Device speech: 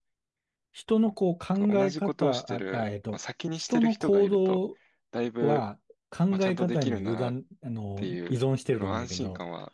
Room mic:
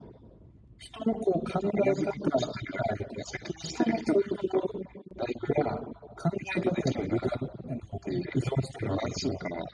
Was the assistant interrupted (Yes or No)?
No